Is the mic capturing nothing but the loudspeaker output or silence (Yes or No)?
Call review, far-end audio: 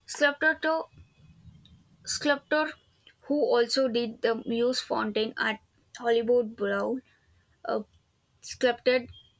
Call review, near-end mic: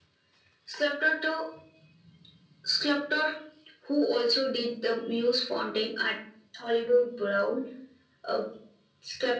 Yes